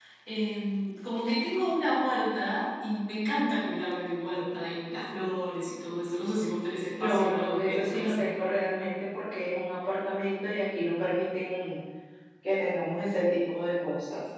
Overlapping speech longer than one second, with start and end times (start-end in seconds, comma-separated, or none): 7.0-8.3